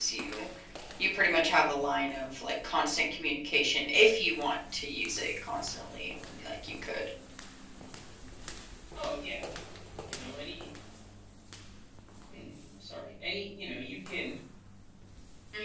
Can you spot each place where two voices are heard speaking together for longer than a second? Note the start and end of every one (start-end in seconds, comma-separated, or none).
none